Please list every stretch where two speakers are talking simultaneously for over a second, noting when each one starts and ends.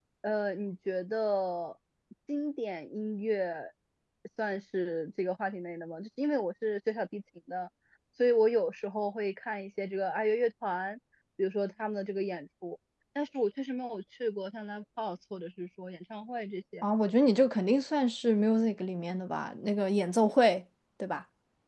none

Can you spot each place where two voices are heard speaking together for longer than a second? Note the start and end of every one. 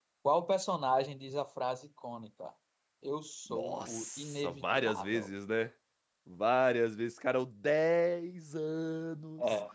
3.5-5.3

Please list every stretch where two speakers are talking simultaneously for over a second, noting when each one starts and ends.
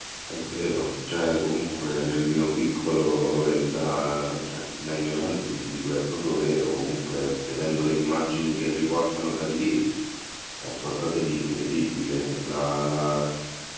none

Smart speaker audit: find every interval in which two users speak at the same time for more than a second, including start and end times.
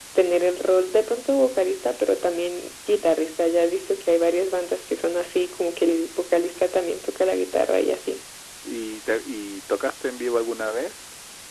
none

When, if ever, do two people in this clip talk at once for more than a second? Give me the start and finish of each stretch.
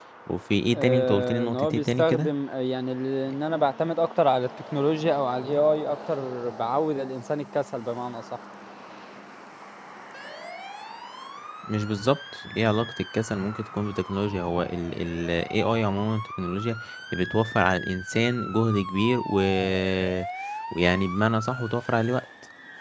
0.8-2.3

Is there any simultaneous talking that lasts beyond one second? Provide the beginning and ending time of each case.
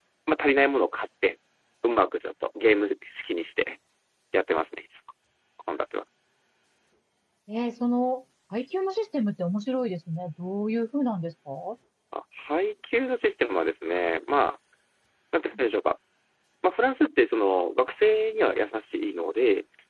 none

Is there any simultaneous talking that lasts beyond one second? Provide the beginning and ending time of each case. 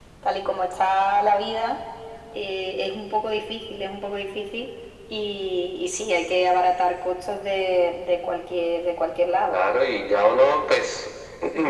none

